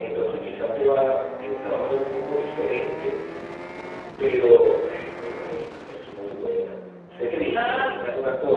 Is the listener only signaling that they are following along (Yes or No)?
Yes